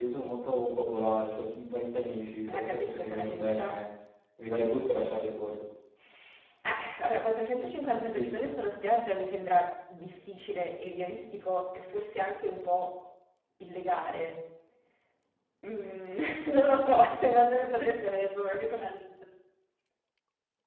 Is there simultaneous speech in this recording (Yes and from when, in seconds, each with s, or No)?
Yes, from 2.5 s